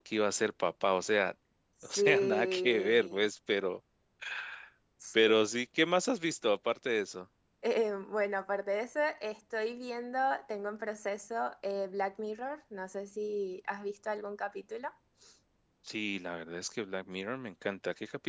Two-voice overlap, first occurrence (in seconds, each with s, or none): 1.8 s